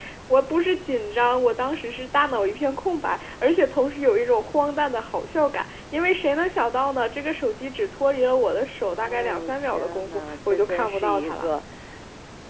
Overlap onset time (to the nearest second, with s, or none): 9 s